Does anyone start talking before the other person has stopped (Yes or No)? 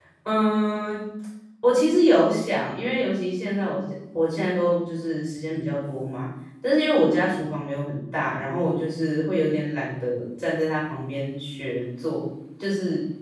No